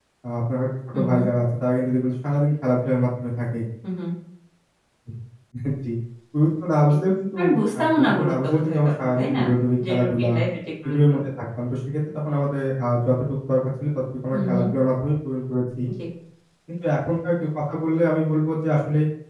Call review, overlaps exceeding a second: present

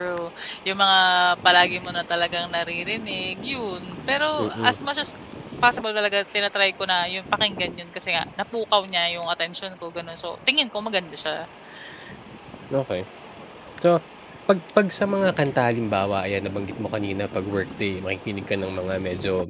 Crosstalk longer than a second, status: none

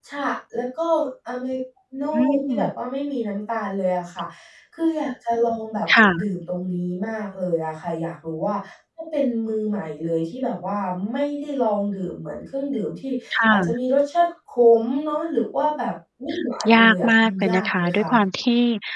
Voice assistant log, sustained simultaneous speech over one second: present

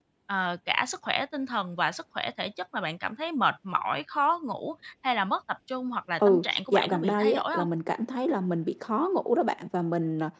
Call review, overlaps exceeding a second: present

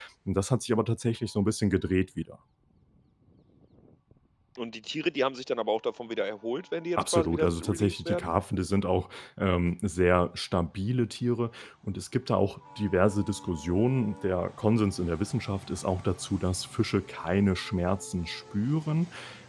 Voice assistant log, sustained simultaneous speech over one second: present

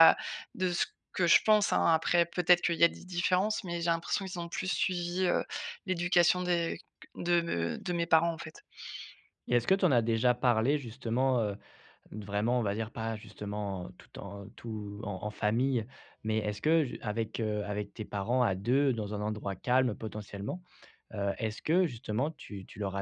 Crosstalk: none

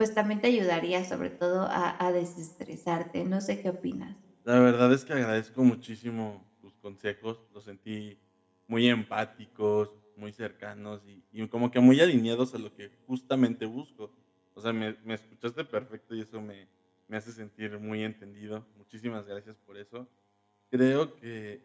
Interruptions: none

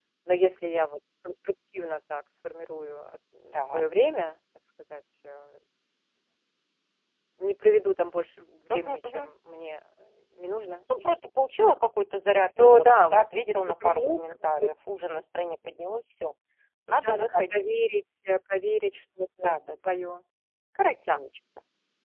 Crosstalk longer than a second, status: present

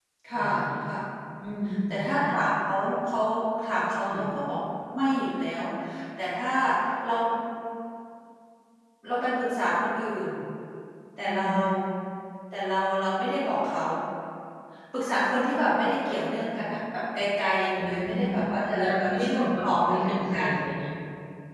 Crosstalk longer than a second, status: present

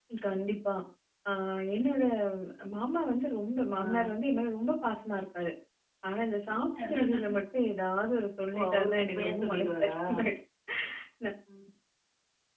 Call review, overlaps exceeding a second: present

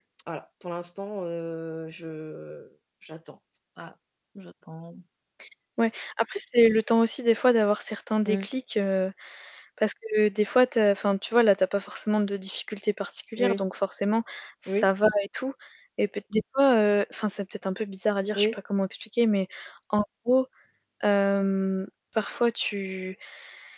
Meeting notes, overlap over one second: none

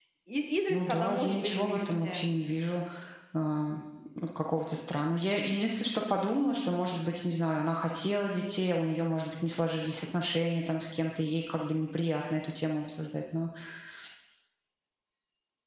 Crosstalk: present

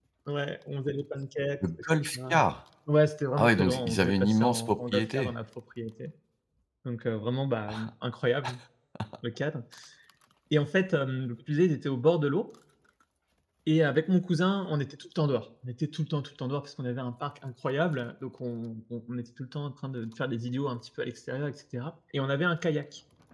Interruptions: present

